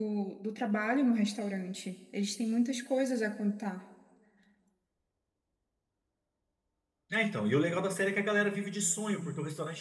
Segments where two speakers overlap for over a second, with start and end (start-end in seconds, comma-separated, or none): none